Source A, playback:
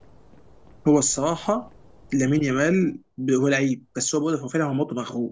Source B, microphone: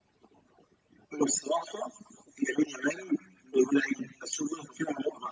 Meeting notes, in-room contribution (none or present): none